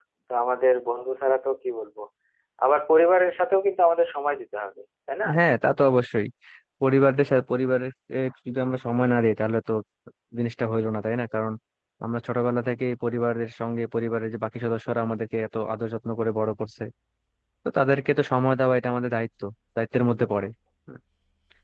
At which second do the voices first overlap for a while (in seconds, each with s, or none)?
none